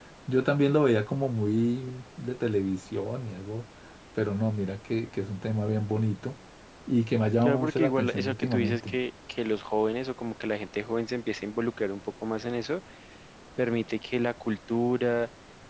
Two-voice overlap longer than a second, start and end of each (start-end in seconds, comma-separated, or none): 7.4-9.0